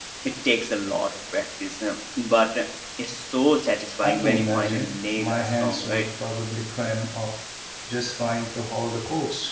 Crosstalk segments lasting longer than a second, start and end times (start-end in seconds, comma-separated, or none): 4.0-6.1